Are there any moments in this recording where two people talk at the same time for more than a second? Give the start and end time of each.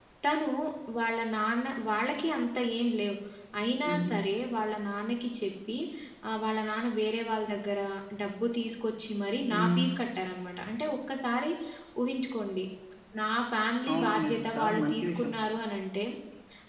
13.9-15.3

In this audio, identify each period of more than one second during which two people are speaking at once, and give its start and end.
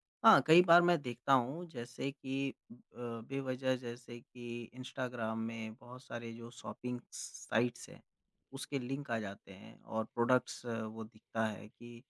none

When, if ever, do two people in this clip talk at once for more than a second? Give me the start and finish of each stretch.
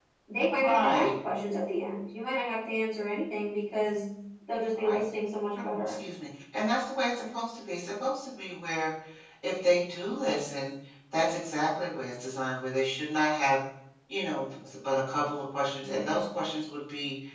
none

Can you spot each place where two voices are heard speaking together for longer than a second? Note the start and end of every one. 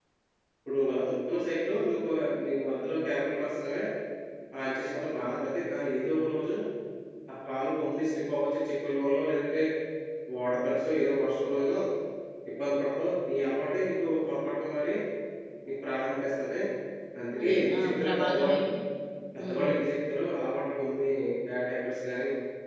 17.4-18.6

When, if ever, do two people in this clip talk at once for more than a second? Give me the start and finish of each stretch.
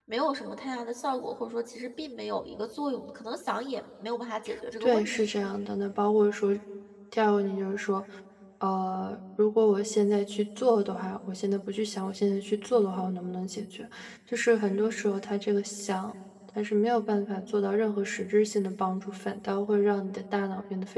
none

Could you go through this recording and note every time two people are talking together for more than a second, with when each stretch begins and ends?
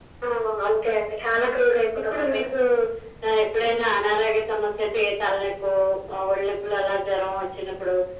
none

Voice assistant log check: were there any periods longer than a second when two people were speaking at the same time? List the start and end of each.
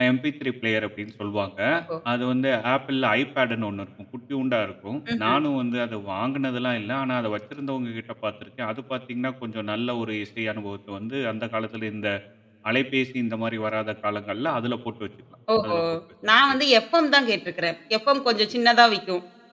none

